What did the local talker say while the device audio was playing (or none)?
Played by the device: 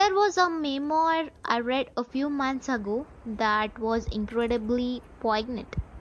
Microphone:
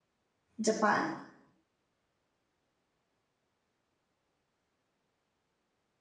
Japan.